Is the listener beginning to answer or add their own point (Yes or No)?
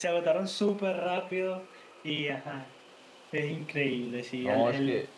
Yes